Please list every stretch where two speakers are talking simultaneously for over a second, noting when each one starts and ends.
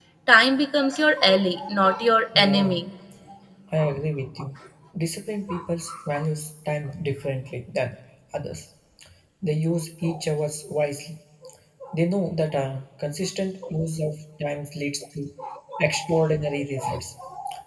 none

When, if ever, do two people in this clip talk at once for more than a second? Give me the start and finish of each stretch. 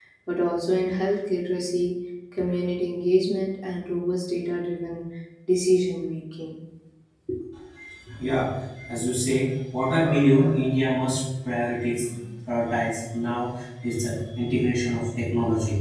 none

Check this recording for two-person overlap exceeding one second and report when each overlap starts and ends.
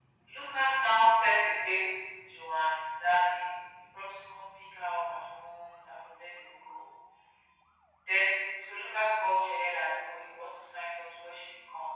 none

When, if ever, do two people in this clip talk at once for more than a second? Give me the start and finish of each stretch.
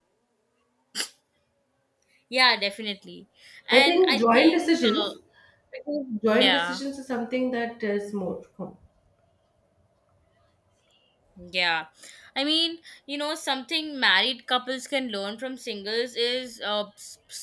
3.7-5.1

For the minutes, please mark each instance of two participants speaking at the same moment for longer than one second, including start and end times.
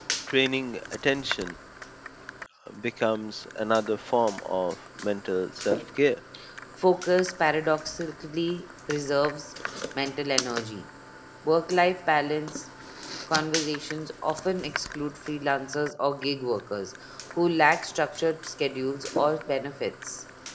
none

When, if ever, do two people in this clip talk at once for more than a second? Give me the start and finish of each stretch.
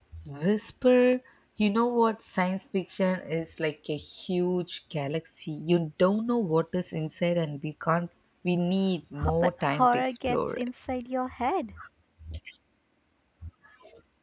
9.2-10.7

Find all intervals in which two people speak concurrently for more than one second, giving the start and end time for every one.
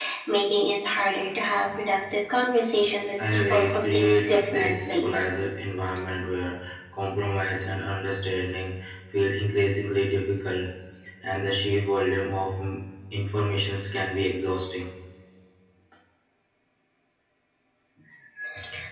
3.3-5.1

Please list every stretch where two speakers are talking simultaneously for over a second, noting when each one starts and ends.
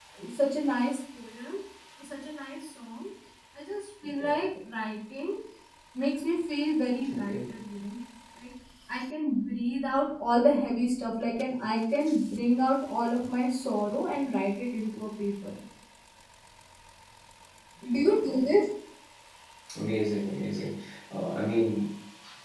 none

